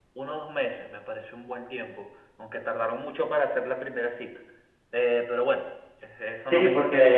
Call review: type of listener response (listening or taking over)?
taking over